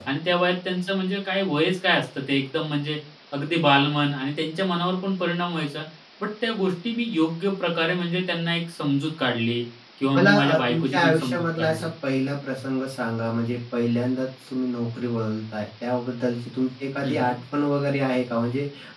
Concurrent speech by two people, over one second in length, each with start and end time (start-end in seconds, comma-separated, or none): 10.1-11.9